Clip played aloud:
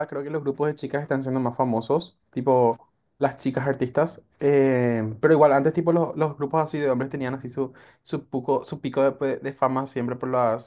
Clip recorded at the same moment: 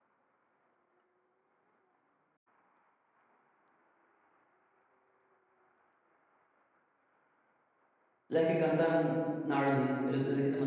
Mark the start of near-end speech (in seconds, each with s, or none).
8.3 s